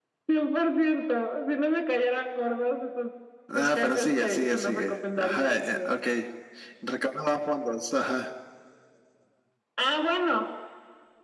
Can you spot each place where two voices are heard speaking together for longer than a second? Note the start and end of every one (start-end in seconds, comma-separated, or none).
3.8-5.9